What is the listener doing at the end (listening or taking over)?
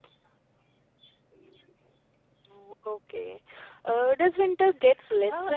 taking over